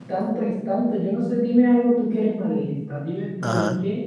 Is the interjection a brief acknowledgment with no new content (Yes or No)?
Yes